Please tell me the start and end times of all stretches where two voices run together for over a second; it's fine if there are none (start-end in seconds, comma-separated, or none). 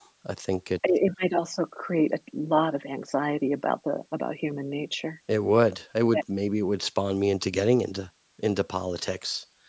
none